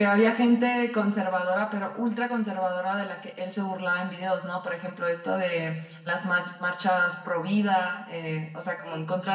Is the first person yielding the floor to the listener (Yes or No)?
No